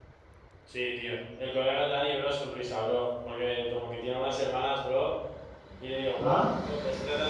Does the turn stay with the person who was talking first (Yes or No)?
Yes